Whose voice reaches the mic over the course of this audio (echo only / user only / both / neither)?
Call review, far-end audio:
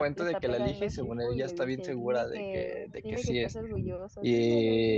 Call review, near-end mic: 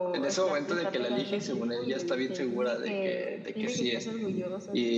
echo only